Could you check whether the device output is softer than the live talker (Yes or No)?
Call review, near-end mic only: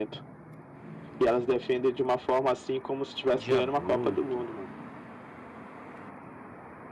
No